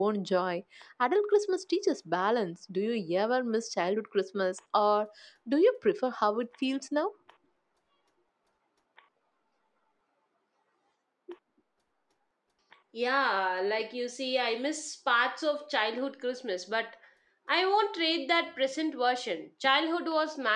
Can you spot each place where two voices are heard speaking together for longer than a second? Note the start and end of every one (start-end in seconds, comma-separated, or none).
none